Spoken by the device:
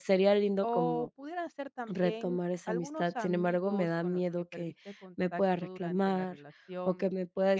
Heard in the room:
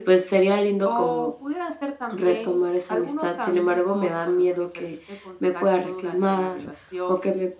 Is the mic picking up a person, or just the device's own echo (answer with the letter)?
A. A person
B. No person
B